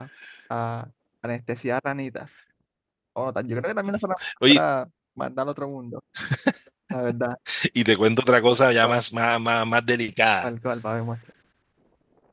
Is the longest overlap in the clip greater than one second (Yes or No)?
No